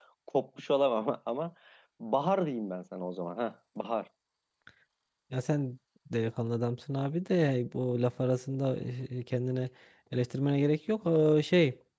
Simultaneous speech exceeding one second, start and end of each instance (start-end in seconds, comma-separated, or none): none